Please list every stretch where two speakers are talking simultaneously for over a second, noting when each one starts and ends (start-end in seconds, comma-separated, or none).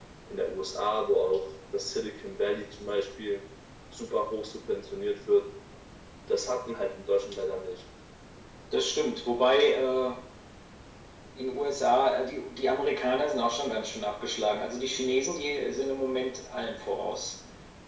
none